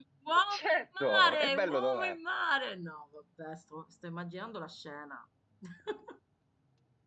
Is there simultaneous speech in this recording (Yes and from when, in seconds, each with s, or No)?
Yes, from 0.5 s